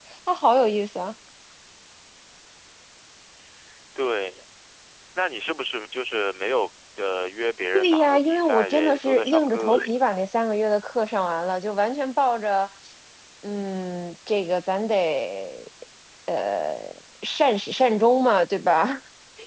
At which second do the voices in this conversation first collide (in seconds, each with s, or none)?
7.7 s